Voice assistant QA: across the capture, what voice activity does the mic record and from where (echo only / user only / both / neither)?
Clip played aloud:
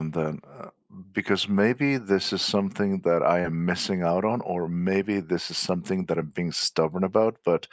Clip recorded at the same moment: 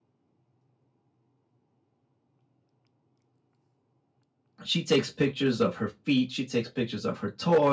user only